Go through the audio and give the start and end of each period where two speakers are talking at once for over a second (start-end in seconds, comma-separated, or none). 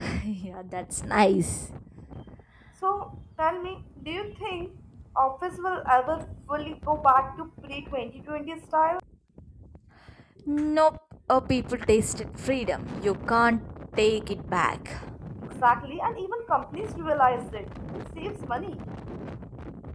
none